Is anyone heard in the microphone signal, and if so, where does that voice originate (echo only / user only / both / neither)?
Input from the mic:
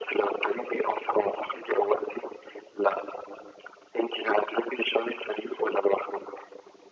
echo only